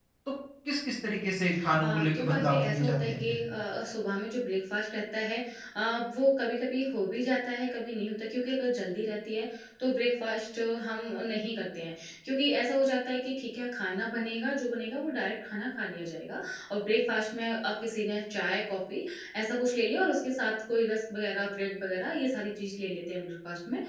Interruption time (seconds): 1.8 s

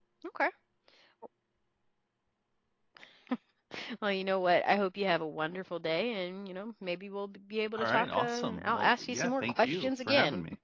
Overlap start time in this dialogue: 7.8 s

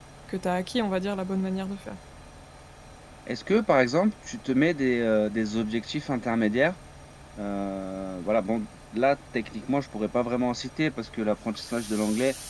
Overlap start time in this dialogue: none

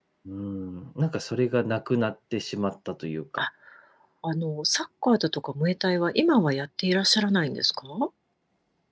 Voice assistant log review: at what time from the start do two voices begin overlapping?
none

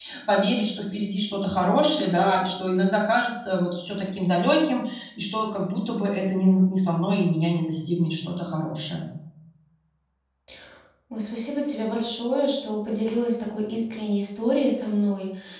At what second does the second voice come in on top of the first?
none

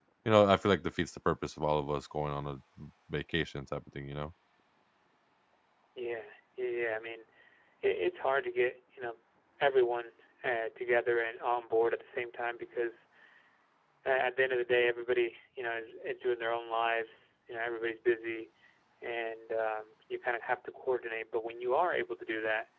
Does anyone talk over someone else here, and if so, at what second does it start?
none

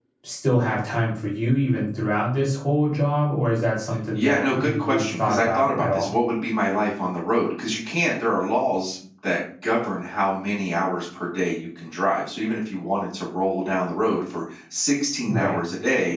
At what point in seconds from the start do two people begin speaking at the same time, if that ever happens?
4.2 s

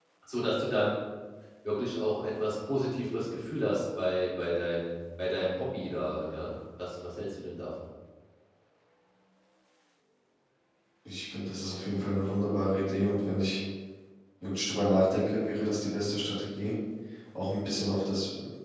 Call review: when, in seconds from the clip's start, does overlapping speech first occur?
none

